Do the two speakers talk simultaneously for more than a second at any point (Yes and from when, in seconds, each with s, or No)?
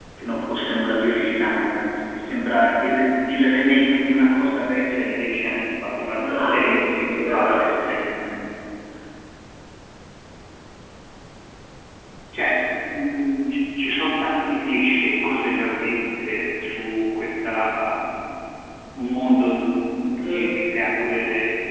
Yes, from 6.2 s